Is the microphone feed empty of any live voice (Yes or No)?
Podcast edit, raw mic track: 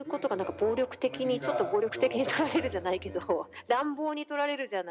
No